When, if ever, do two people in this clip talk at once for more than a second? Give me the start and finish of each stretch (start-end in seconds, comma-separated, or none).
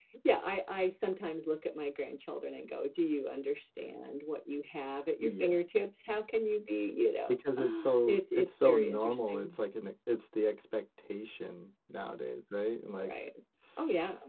7.3-9.5